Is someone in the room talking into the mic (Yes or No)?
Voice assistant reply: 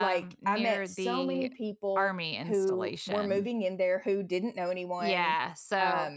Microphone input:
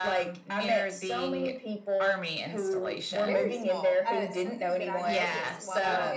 Yes